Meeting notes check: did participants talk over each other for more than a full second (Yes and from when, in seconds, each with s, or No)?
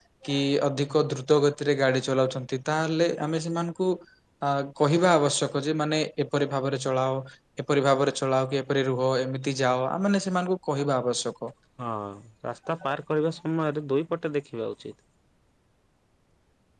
No